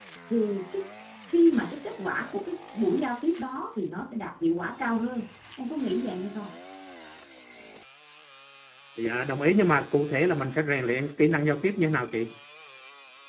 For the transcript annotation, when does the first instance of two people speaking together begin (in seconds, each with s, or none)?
none